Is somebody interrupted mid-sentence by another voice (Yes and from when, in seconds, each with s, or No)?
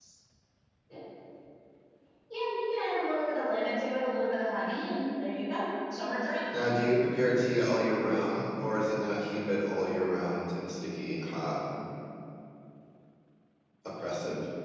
No